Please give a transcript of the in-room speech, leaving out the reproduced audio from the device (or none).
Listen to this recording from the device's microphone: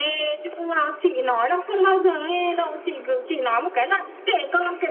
none